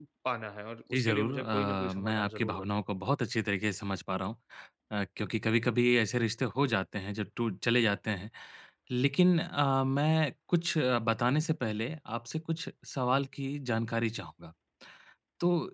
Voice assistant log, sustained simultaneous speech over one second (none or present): present